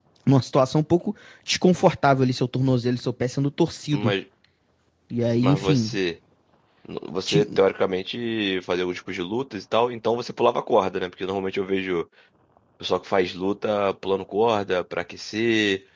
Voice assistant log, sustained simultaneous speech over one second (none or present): none